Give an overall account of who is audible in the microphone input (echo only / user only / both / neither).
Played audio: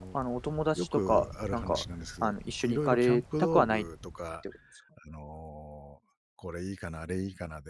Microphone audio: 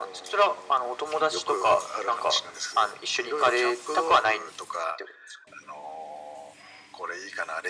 echo only